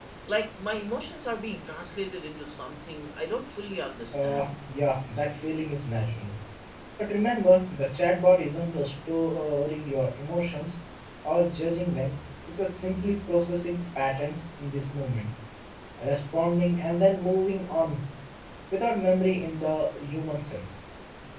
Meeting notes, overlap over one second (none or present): none